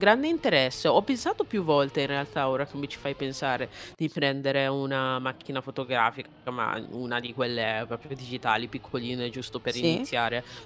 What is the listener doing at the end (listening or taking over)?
listening